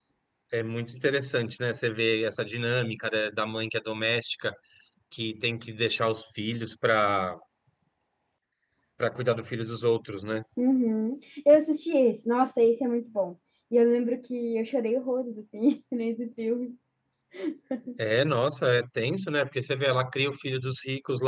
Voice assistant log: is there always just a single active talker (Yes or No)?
Yes